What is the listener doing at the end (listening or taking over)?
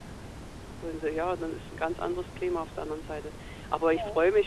listening